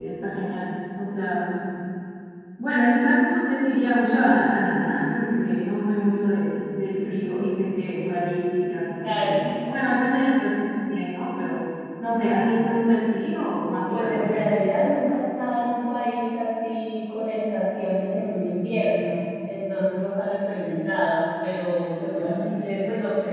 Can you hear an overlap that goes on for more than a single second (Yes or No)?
No